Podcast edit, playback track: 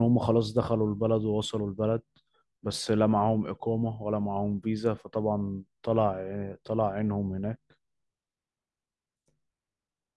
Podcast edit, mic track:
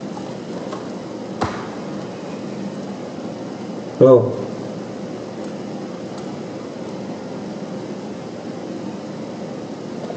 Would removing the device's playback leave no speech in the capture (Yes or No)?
No